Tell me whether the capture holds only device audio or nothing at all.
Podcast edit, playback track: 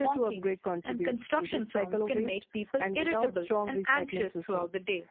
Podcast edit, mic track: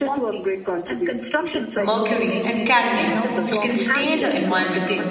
No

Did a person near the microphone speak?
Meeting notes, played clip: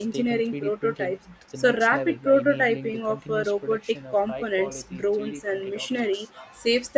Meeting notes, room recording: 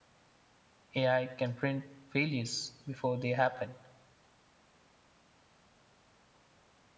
Yes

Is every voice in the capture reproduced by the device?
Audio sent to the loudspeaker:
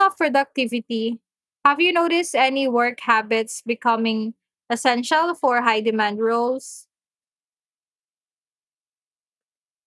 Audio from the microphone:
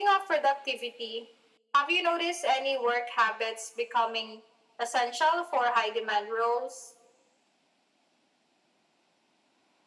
Yes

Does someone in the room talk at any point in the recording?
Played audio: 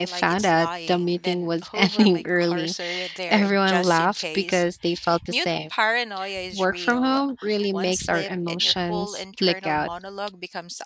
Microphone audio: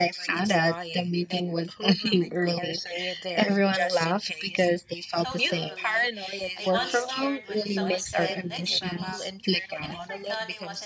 Yes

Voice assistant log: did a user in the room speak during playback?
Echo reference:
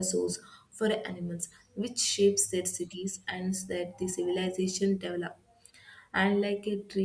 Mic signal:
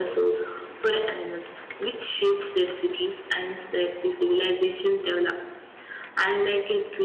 No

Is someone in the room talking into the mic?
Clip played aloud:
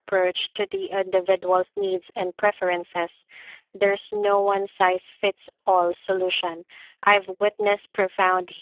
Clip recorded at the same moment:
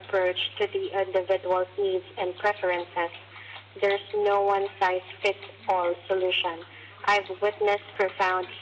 No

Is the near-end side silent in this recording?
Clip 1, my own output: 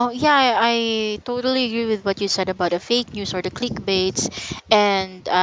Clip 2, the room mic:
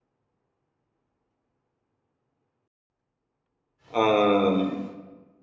No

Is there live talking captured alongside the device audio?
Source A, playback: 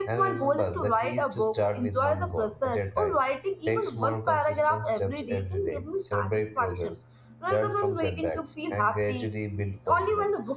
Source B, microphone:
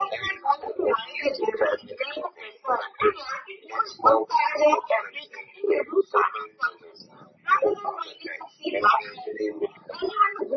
No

